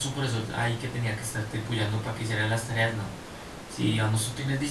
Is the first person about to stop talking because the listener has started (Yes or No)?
No